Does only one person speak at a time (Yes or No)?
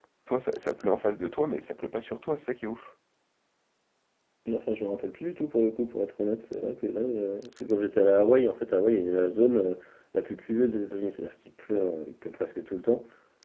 Yes